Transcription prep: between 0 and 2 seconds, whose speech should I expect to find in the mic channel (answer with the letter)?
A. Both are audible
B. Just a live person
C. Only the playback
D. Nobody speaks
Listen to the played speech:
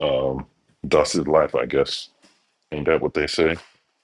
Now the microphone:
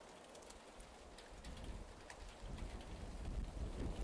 D